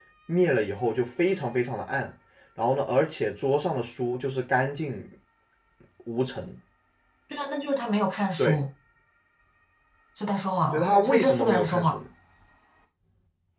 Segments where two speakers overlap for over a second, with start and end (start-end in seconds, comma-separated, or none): 10.7-12.0